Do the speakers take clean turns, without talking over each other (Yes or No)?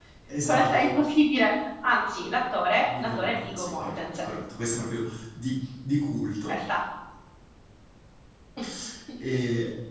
No